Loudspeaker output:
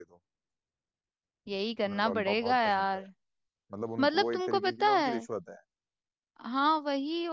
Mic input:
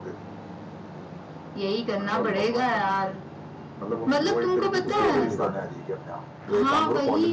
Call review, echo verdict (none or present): present